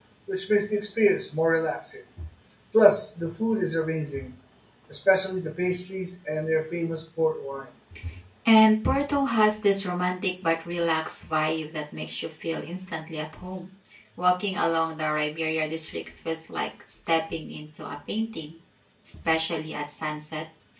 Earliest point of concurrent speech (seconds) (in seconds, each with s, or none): none